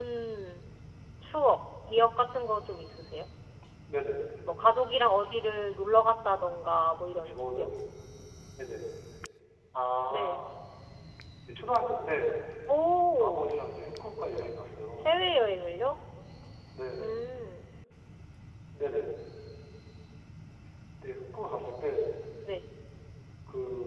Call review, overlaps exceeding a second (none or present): none